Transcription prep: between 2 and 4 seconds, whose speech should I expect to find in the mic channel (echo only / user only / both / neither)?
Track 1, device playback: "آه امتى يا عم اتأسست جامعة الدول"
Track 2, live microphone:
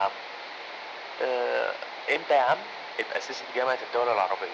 echo only